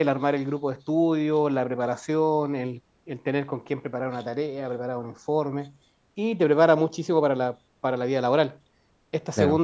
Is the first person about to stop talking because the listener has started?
No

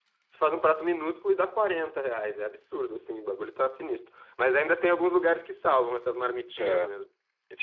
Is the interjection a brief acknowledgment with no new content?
No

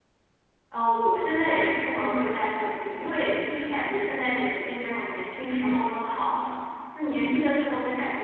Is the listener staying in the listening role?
Yes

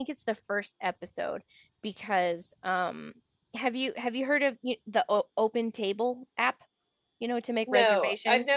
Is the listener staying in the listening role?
No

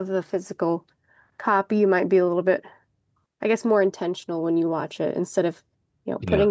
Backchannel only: Yes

